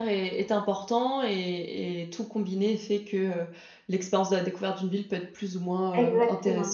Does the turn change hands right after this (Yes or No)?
Yes